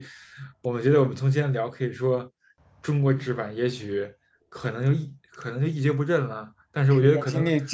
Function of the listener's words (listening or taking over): taking over